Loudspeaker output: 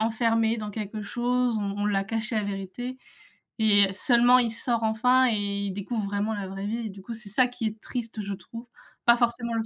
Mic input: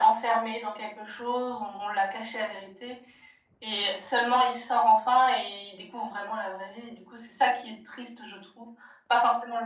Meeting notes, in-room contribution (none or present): none